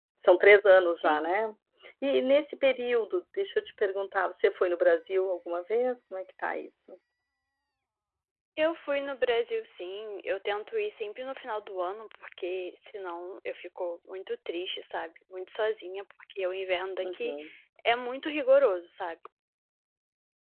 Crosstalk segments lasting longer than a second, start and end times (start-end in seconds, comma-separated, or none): none